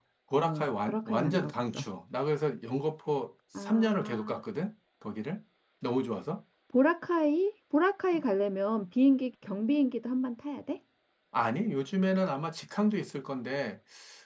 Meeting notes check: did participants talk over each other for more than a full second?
Yes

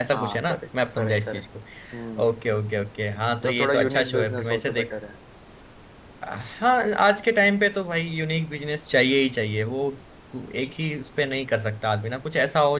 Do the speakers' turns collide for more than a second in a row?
Yes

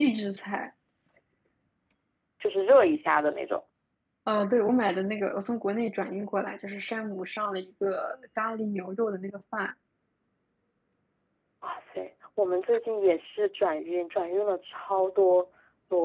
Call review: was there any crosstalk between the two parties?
No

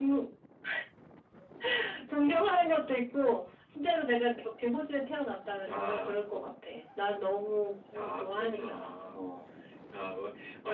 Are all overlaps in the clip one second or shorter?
No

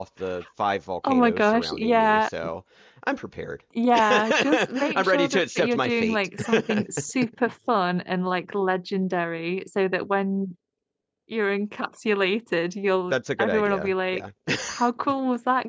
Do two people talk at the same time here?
Yes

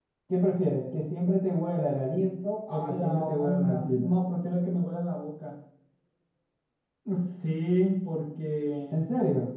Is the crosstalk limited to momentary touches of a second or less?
No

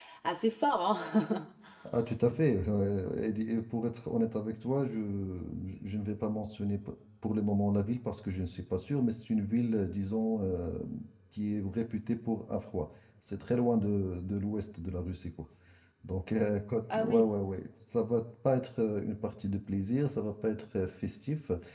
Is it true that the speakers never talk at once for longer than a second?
Yes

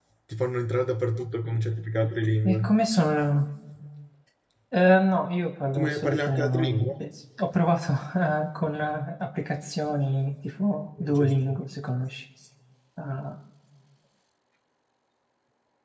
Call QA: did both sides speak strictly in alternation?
No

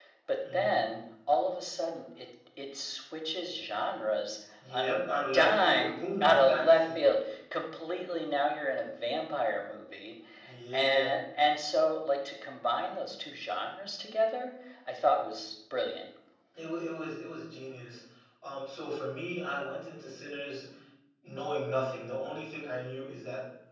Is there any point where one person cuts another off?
Yes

